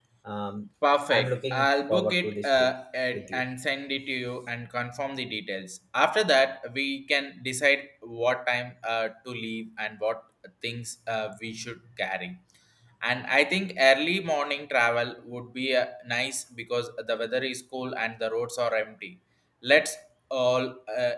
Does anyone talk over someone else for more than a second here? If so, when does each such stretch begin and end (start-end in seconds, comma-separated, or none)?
1.1-2.7